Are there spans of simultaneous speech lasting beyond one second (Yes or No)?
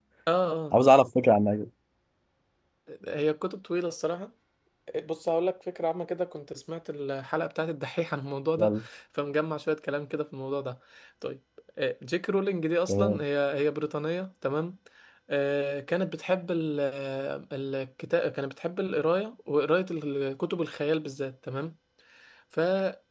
No